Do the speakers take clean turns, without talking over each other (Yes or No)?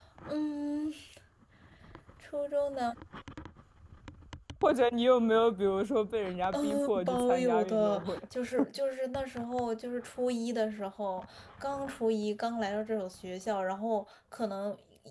No